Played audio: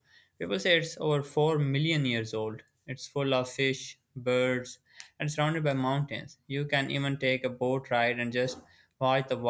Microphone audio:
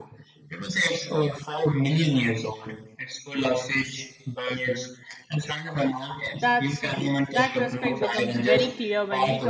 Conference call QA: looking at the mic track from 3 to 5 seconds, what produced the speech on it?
echo only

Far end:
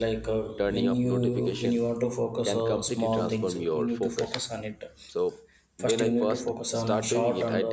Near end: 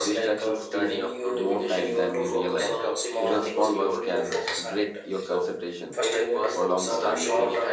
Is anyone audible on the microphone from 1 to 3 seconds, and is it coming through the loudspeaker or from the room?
both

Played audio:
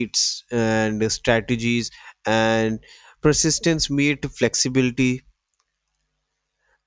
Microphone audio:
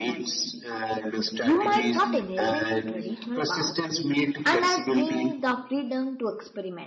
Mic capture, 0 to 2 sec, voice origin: both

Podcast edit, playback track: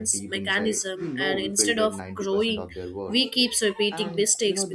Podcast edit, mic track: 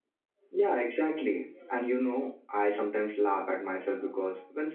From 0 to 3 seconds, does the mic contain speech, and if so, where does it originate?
user only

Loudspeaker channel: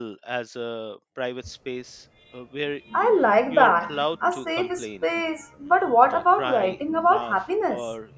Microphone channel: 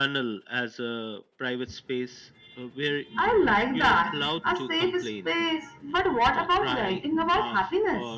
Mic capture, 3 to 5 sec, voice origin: echo only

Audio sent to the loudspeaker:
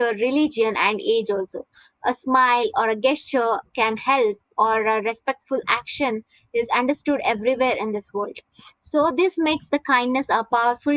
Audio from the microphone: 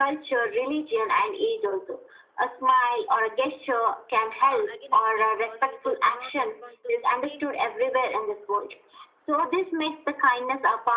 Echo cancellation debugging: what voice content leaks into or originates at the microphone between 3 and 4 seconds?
echo only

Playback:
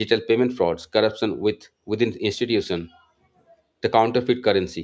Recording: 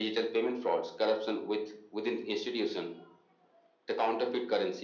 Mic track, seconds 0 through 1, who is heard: echo only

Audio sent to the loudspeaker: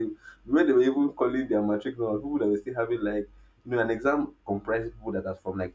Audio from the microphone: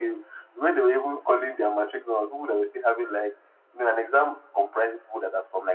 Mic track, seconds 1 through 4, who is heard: echo only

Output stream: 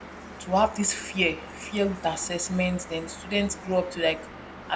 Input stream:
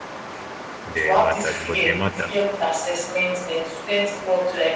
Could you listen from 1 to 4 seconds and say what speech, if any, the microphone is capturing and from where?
both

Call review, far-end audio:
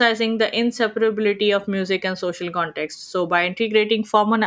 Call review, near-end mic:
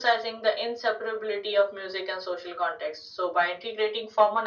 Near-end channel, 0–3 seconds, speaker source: echo only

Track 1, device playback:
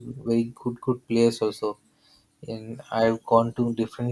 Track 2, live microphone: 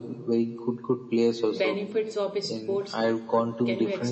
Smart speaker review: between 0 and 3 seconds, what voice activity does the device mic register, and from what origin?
both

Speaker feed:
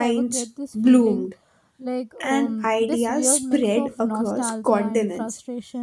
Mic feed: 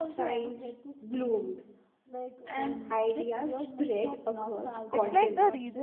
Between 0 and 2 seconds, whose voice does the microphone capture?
echo only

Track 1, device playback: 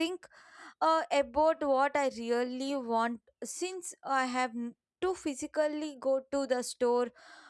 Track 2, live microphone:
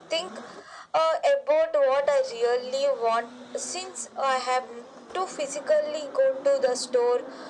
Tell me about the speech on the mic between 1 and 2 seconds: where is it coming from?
echo only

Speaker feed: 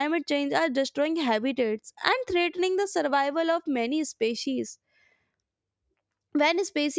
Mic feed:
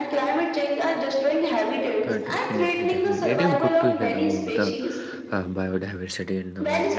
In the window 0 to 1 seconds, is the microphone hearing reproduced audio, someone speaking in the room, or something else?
echo only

